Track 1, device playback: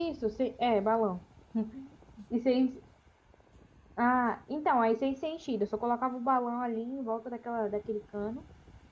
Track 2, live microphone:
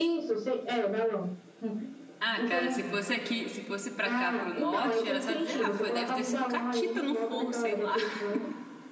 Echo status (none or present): present